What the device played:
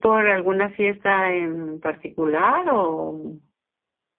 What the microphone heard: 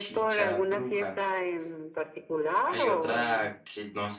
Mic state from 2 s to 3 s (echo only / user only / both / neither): both